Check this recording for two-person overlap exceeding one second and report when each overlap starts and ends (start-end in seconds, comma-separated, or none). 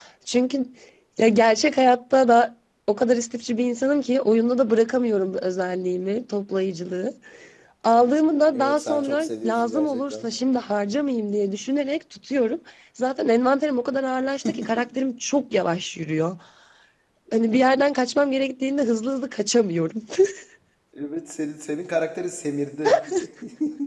8.5-10.3